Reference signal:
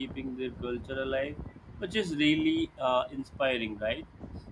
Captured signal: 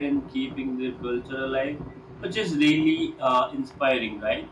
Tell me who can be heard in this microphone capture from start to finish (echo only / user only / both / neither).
echo only